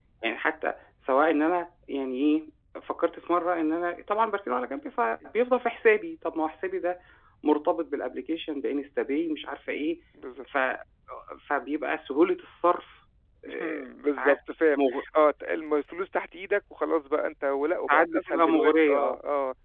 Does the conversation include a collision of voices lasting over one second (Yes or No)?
Yes